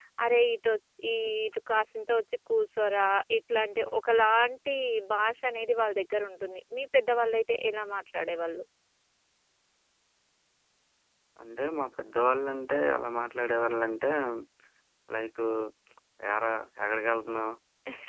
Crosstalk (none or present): none